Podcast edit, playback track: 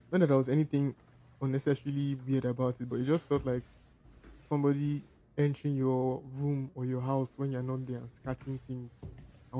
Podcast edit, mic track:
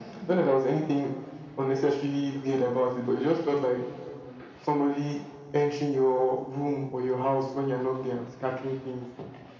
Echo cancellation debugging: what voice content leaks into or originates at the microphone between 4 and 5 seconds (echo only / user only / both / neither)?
echo only